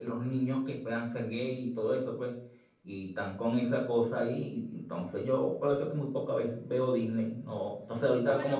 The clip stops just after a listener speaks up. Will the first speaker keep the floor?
No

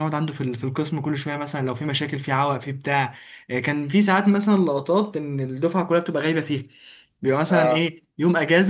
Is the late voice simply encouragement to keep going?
Yes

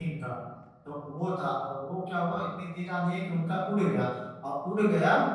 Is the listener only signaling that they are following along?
Yes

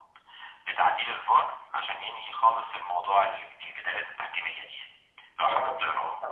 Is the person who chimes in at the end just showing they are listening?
No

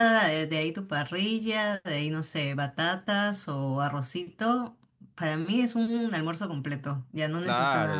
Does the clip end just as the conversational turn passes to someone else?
Yes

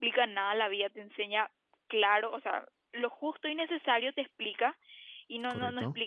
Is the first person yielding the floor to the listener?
No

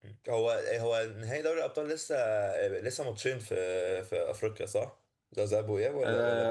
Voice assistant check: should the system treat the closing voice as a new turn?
Yes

